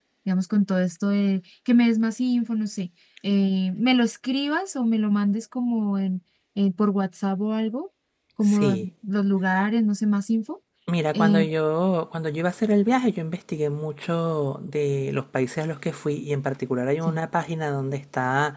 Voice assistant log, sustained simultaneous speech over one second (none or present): none